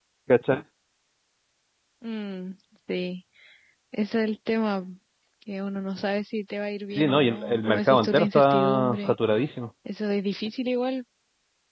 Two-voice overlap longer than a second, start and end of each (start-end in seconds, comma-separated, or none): 7.0-9.2